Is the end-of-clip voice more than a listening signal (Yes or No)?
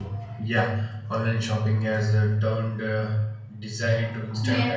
Yes